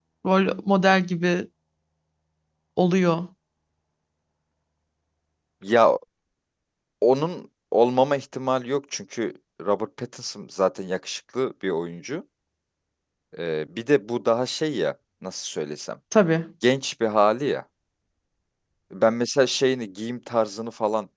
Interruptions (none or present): none